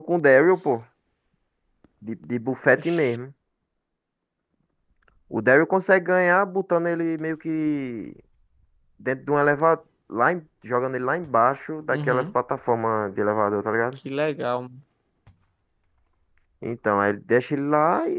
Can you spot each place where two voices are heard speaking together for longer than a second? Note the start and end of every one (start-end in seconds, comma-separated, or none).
none